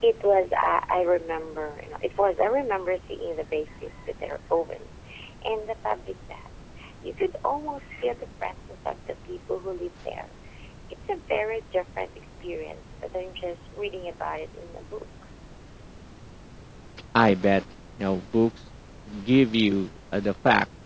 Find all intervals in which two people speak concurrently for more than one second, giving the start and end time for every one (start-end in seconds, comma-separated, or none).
none